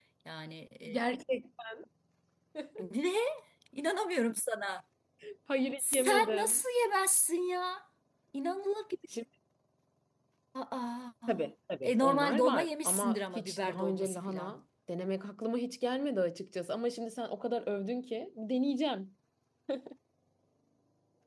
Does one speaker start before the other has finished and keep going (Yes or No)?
Yes